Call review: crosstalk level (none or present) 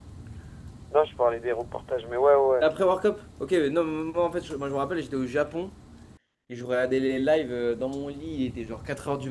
none